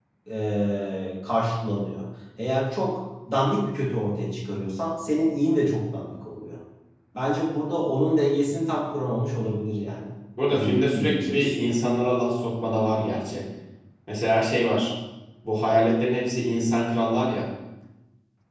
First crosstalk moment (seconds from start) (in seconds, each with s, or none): 10.5 s